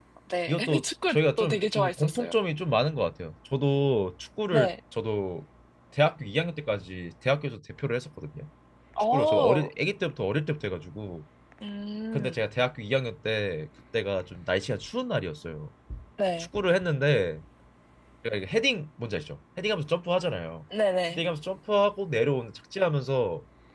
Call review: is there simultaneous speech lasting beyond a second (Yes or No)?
Yes